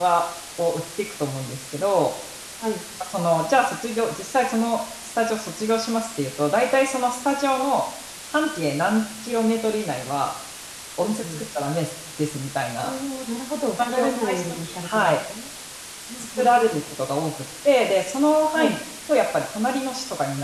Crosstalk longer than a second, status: present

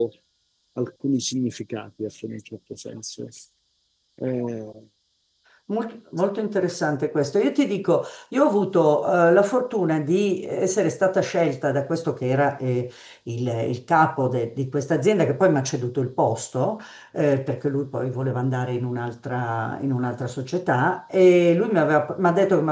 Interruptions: none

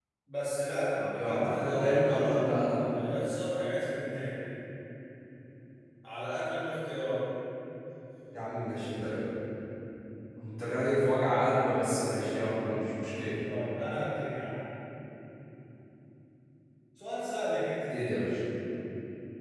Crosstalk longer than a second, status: present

